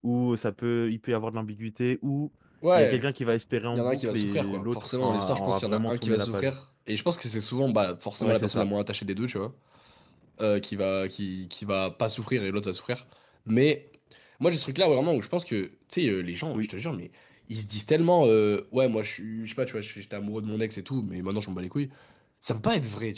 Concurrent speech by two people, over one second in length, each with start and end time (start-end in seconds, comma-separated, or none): 3.7-6.5